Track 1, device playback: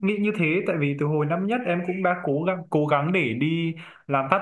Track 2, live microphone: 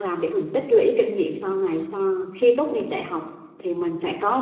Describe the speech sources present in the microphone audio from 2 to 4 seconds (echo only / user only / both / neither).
user only